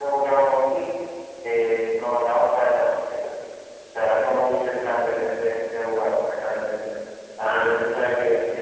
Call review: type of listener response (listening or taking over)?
listening